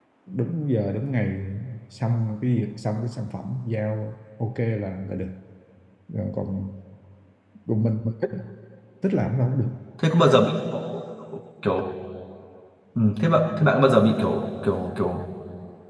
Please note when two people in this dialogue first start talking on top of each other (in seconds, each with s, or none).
none